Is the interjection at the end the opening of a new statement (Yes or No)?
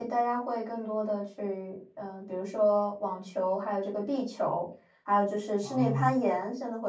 No